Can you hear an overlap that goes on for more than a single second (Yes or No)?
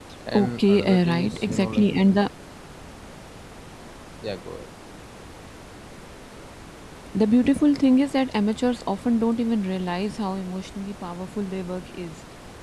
Yes